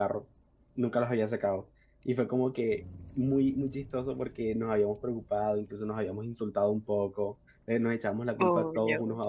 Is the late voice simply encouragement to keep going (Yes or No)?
Yes